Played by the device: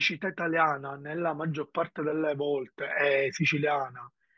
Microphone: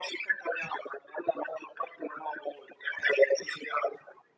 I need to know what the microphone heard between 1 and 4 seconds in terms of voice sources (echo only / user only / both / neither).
echo only